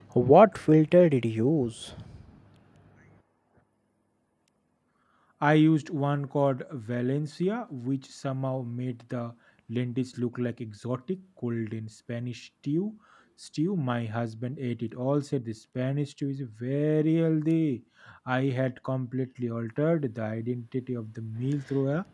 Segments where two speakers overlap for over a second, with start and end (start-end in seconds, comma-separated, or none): none